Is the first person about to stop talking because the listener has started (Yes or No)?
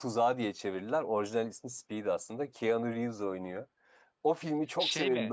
No